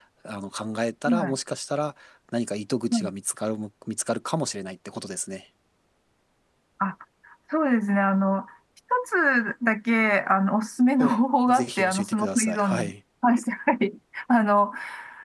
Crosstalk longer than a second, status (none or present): present